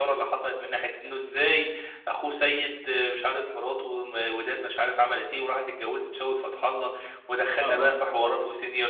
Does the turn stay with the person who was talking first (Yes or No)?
Yes